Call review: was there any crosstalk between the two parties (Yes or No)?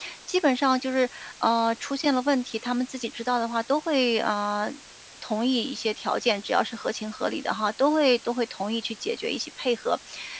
No